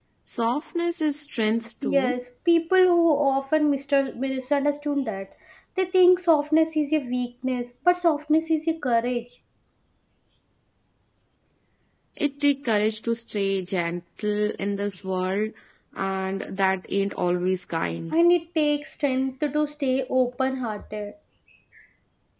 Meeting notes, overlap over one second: none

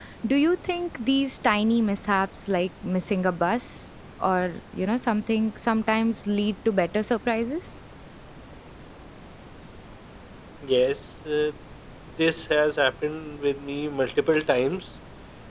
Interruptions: none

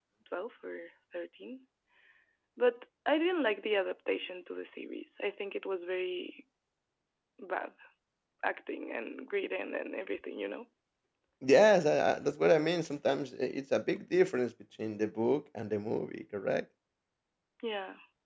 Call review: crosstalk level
none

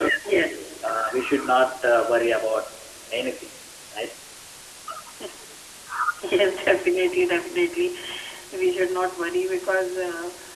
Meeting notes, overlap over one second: none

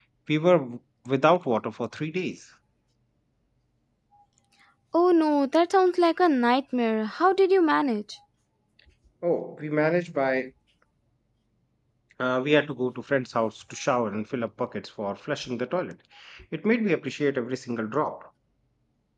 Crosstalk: none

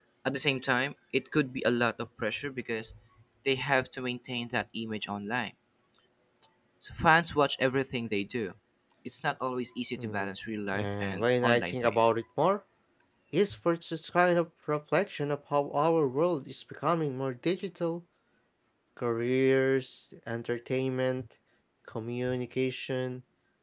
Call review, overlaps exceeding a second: present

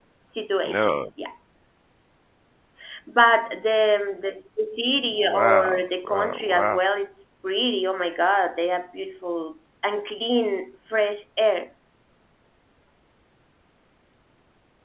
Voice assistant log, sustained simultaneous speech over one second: present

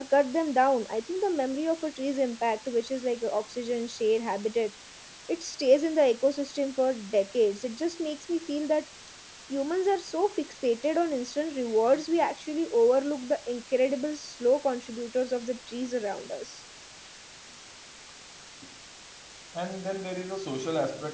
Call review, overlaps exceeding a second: none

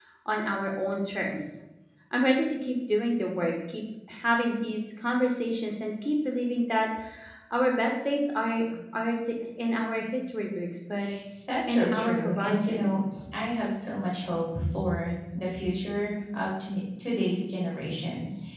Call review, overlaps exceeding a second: present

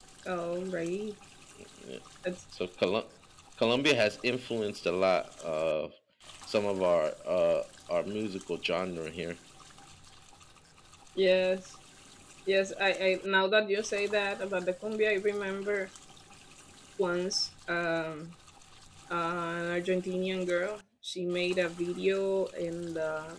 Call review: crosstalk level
none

